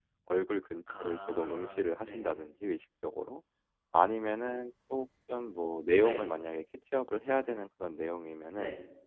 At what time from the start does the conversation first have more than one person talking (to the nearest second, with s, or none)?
1 s